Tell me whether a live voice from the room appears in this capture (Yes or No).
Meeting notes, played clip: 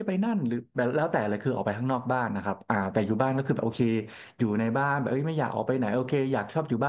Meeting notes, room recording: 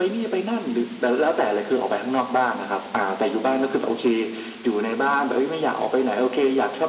No